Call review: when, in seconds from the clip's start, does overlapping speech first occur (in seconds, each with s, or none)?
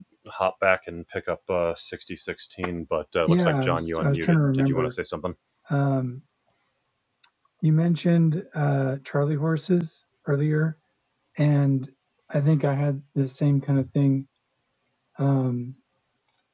3.2 s